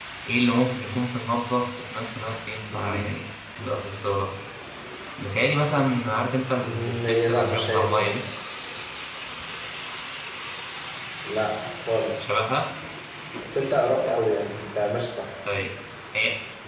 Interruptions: present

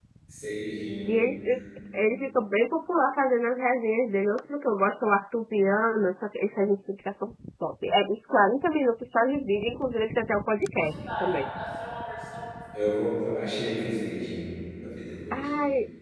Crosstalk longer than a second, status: none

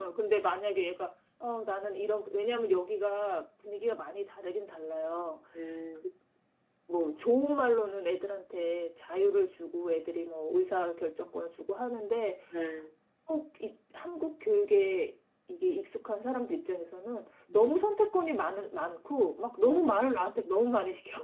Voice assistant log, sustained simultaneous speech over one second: none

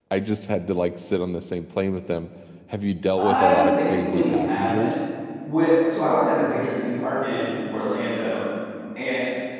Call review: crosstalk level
present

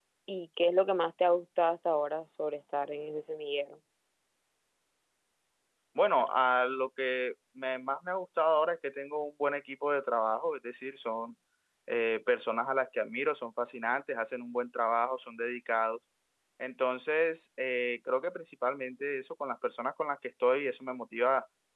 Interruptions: none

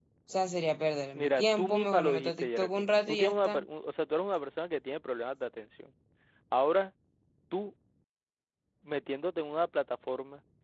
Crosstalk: present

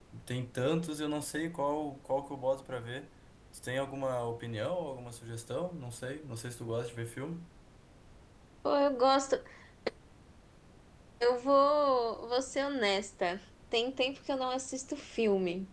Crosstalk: none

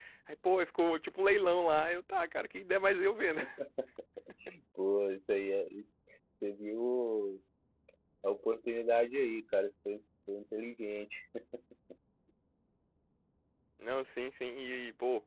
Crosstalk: none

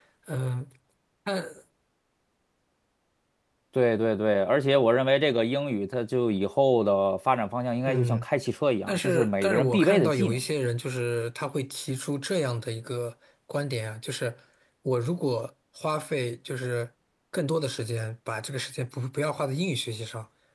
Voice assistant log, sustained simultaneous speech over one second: present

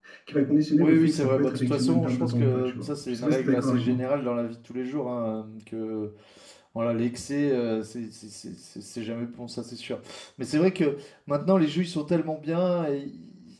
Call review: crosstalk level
present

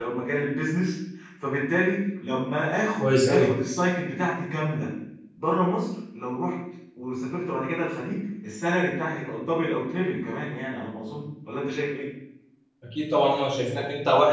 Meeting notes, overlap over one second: none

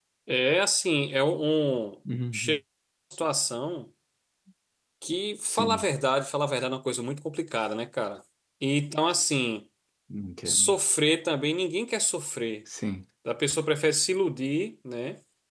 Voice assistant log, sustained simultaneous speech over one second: none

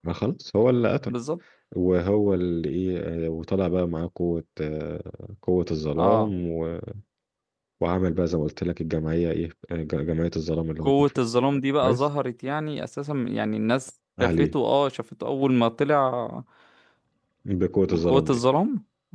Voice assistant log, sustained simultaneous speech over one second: none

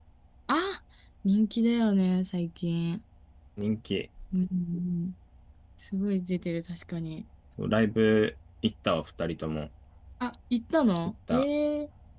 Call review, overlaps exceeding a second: none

